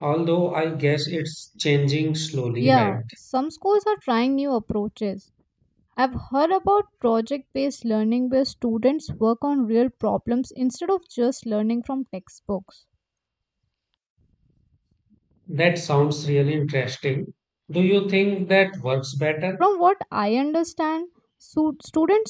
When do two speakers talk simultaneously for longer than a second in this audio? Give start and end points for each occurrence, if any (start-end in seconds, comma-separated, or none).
none